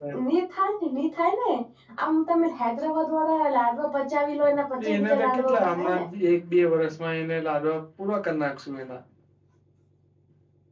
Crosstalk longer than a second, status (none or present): present